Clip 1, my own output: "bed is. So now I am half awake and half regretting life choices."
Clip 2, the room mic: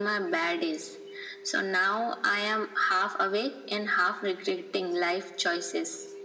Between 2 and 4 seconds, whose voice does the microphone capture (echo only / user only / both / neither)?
echo only